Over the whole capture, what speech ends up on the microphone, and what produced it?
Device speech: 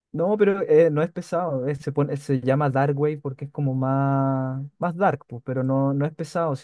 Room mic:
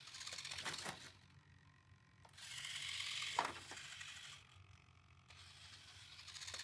neither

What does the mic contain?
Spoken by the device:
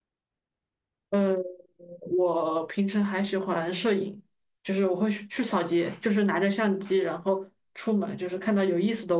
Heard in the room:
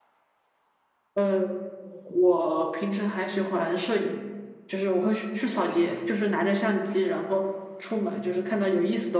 both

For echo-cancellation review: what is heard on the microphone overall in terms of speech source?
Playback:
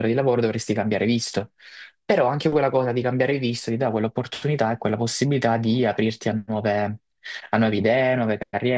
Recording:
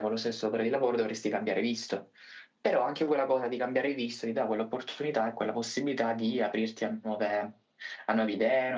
echo only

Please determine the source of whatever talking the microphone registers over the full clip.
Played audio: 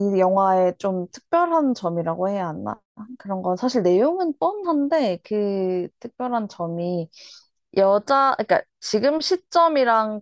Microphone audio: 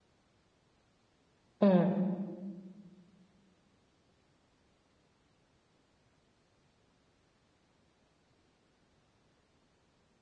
user only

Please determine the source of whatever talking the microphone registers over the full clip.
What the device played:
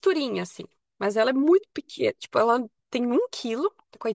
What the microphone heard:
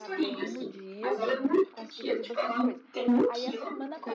both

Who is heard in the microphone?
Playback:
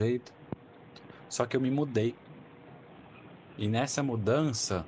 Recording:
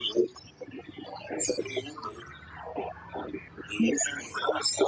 echo only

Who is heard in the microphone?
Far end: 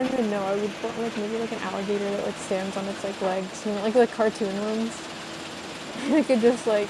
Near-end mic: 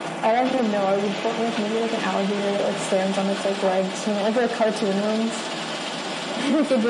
echo only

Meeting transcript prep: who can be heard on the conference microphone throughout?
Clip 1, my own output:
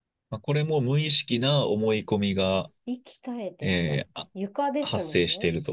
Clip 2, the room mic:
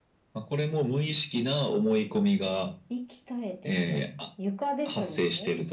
echo only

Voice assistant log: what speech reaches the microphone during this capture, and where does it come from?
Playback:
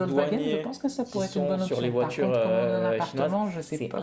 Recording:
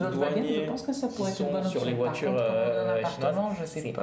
echo only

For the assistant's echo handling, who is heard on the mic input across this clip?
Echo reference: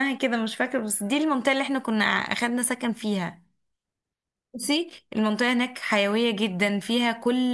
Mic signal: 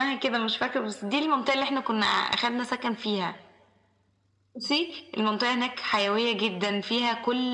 echo only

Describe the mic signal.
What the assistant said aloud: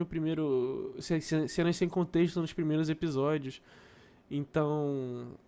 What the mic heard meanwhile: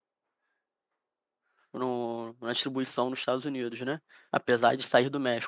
user only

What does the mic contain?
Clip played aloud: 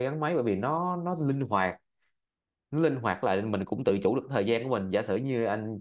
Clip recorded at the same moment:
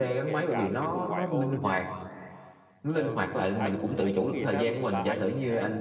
both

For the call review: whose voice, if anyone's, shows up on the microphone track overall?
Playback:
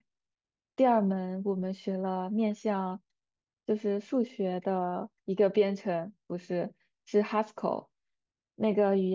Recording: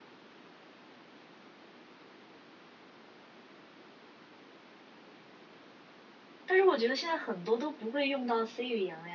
user only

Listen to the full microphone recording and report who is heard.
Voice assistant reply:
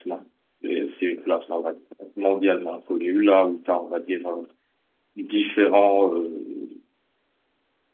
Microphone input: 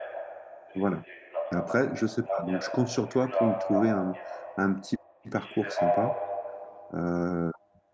both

